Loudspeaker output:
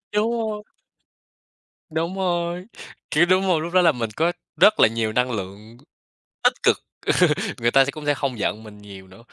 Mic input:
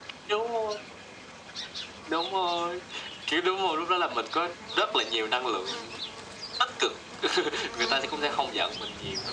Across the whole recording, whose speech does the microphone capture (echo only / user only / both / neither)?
echo only